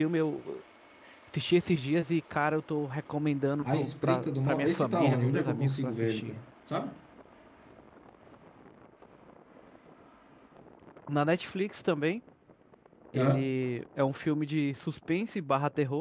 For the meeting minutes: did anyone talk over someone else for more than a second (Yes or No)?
Yes